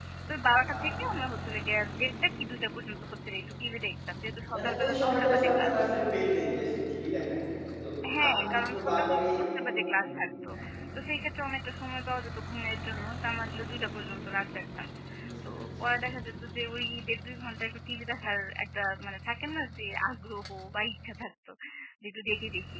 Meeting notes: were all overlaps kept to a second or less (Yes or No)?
No